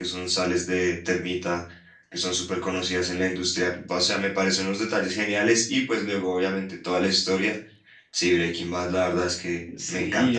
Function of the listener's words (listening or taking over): taking over